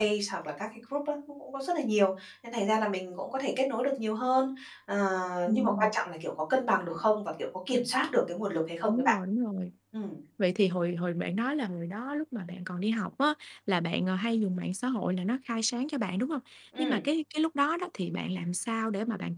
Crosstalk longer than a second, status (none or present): none